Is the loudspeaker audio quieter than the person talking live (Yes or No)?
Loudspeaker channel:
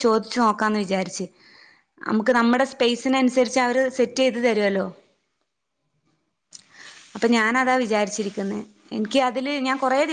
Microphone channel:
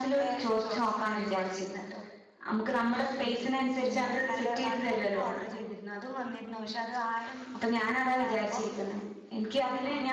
No